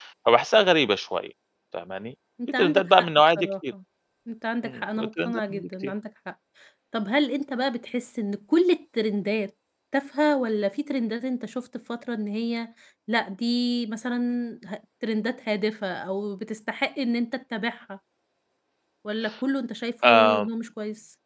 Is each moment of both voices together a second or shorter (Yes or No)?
No